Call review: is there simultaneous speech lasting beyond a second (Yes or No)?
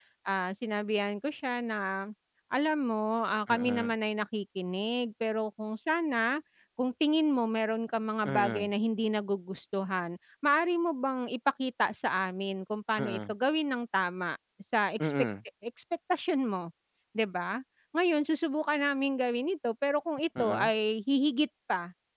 No